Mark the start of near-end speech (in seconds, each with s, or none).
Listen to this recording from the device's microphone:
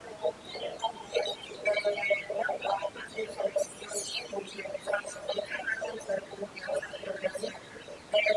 none